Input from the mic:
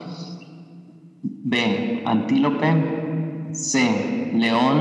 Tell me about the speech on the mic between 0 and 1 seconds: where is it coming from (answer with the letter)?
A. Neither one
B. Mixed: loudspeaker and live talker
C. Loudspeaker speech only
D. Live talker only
A